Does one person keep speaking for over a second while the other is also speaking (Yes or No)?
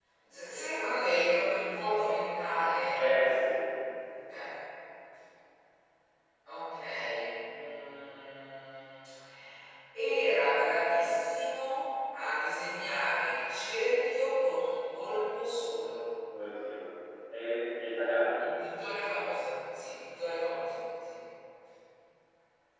No